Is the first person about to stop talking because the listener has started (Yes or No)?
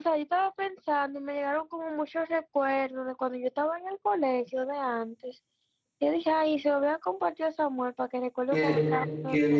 Yes